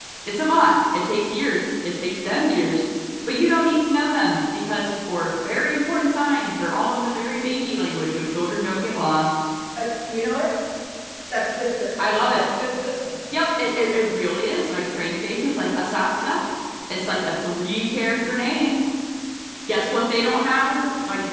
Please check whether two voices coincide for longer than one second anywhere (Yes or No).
No